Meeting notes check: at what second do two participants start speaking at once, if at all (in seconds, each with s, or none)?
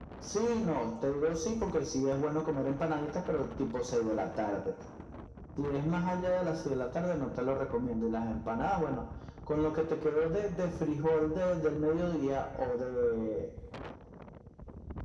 none